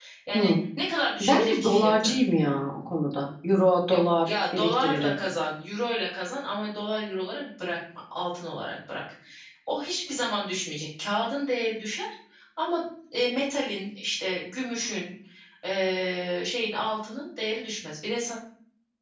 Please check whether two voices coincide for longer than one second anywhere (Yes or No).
Yes